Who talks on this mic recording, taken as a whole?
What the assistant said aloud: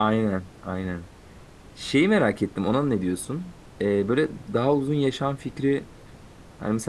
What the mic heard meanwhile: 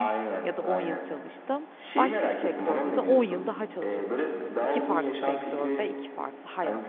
both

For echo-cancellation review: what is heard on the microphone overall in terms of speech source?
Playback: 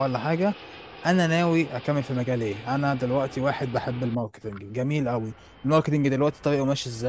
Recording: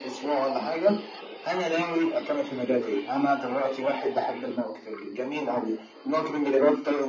echo only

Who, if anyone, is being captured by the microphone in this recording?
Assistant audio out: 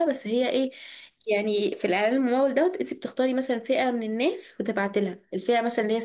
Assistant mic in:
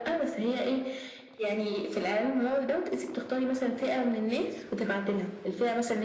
echo only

